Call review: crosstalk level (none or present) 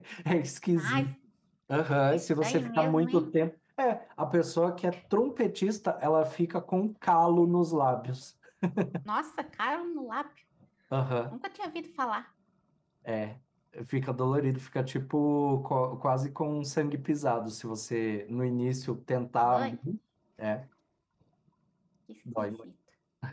present